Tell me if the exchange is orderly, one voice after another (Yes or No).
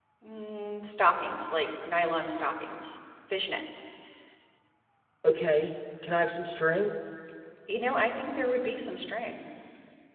Yes